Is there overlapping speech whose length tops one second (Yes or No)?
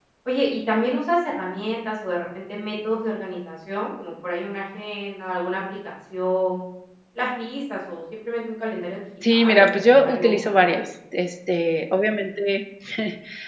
Yes